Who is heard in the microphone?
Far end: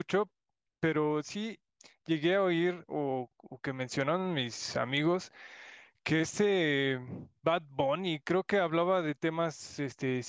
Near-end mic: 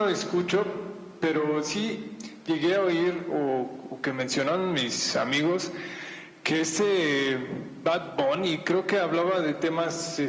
echo only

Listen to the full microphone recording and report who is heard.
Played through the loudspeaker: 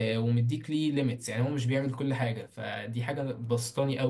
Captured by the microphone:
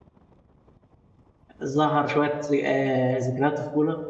user only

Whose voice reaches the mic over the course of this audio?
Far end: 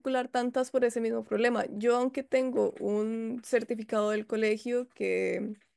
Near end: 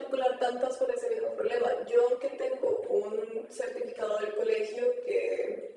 echo only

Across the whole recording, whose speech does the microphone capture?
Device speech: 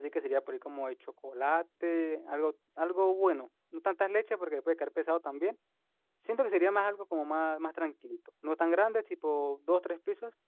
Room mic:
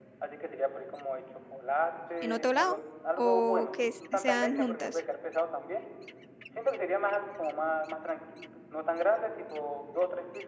both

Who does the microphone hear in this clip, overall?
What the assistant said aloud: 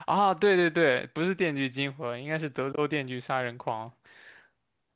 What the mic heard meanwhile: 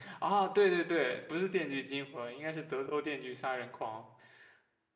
echo only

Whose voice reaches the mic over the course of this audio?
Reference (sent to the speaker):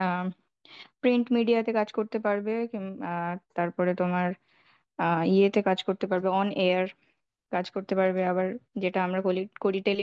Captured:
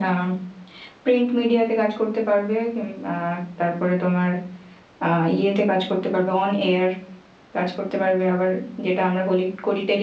echo only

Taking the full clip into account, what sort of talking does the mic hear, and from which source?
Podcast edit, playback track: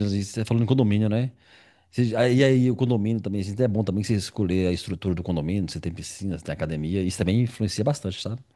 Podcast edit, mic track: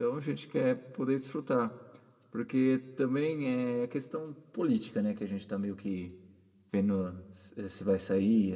user only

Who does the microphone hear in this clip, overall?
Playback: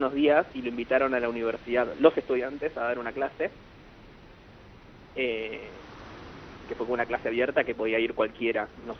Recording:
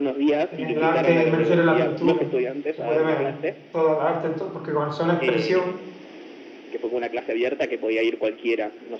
both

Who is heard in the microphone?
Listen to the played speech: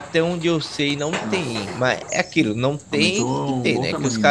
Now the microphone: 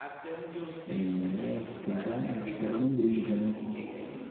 both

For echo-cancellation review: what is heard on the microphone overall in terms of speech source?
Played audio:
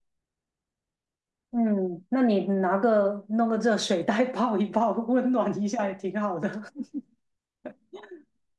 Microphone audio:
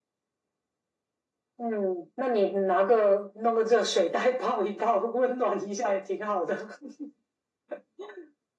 echo only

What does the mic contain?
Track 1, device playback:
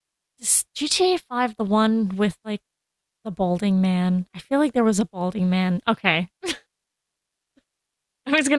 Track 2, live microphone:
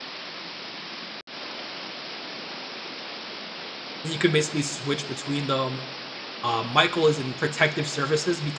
user only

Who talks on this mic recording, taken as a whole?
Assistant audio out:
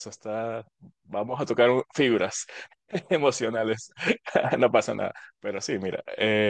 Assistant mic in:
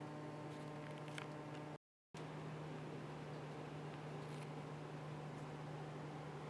neither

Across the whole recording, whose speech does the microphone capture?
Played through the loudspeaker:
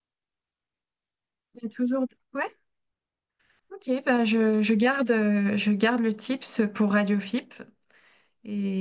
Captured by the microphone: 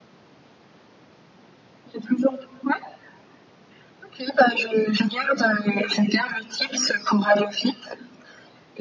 echo only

